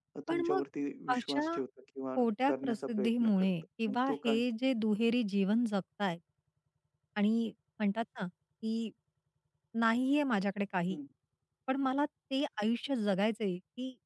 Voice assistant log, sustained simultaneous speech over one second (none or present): present